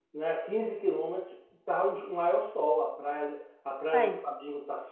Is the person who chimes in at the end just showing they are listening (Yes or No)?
Yes